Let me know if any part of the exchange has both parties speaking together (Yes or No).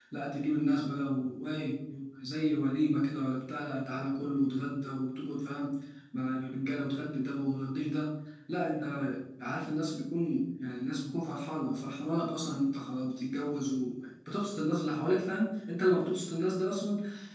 No